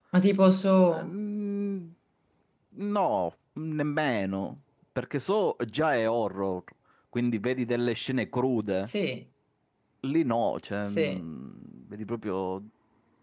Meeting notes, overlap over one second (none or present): none